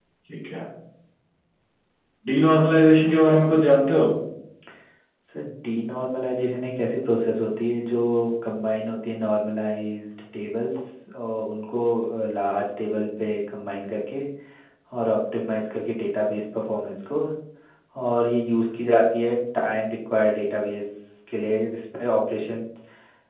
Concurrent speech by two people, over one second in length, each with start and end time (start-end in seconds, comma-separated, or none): none